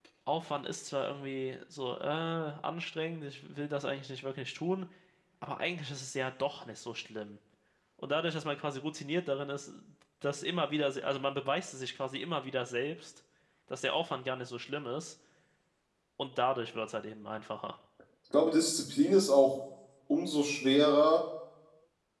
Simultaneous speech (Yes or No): No